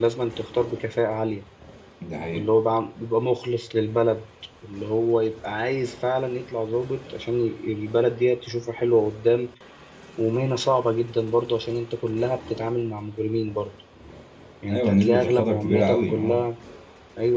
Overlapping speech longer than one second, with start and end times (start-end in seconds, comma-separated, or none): 14.7-16.4